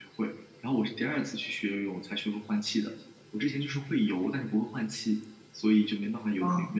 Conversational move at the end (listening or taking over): taking over